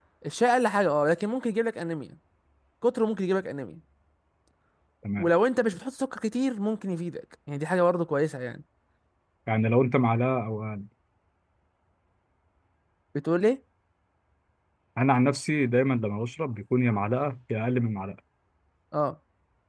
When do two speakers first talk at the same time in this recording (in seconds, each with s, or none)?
none